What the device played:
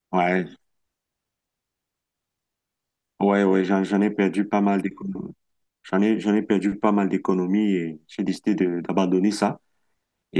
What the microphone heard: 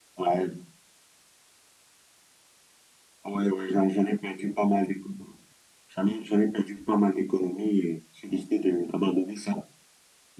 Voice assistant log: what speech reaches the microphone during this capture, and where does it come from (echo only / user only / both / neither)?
echo only